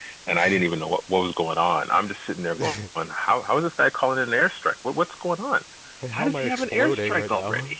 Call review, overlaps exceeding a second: present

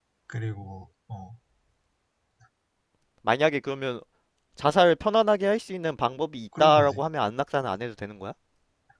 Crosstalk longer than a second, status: none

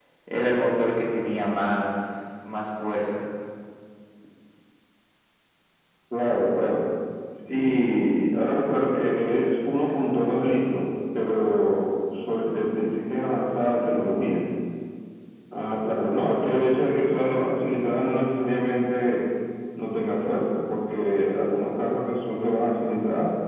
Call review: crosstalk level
none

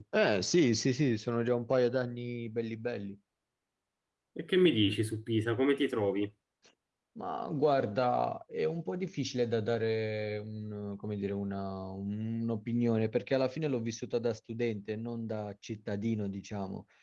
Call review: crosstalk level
none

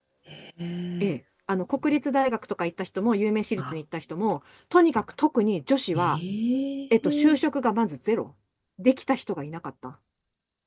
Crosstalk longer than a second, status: none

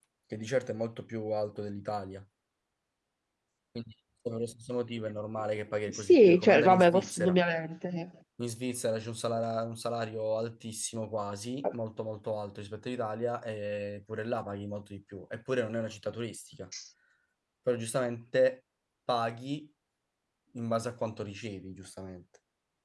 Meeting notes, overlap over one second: present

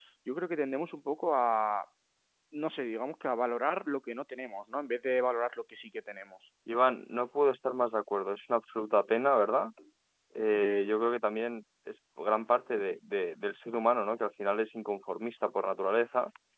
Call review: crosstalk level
none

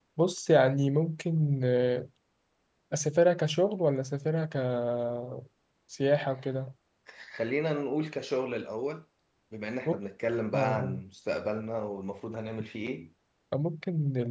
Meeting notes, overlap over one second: none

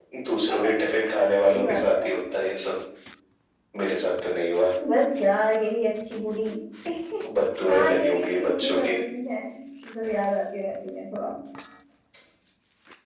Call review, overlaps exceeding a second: present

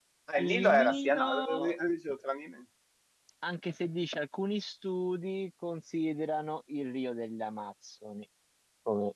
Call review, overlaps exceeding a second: present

